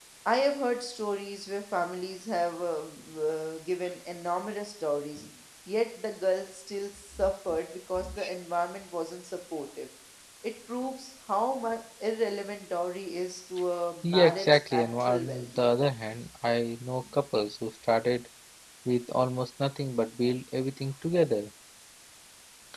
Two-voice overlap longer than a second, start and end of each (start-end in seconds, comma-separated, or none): 14.0-15.7